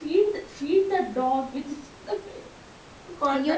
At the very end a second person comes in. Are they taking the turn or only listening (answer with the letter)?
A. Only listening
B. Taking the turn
B